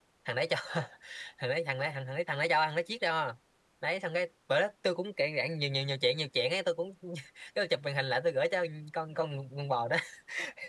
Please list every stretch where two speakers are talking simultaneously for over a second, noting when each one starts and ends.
none

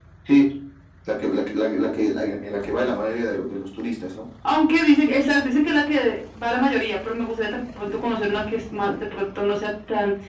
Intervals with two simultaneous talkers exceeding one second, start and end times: none

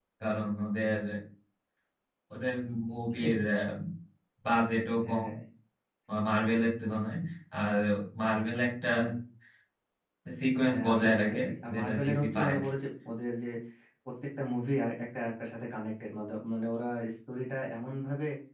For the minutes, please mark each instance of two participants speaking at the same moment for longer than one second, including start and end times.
10.7-12.7

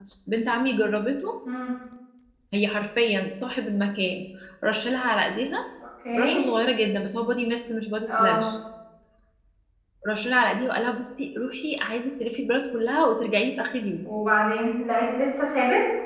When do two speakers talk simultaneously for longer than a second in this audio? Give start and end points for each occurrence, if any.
none

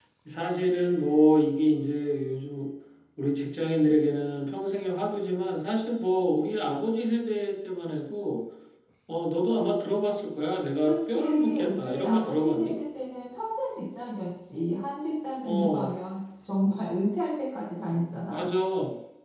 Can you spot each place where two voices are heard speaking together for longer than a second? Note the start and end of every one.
10.8-12.8

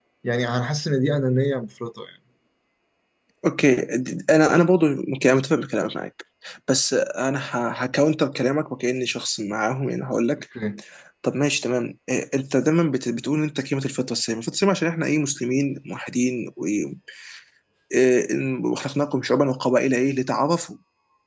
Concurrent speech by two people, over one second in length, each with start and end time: none

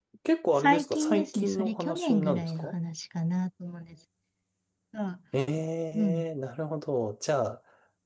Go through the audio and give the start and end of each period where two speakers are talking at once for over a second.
0.6-2.7

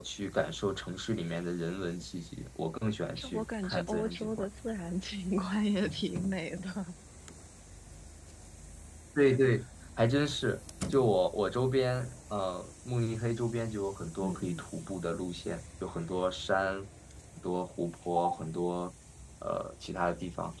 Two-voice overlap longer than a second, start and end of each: 3.1-4.5

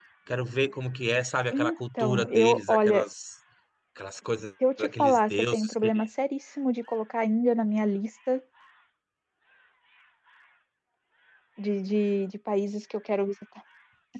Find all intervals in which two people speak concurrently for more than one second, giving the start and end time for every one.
1.5-3.0, 4.8-6.0

